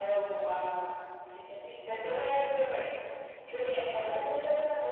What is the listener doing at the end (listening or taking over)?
listening